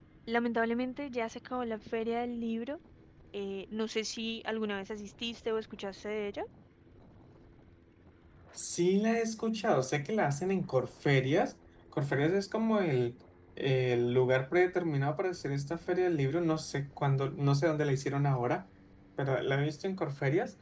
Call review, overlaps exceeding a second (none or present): none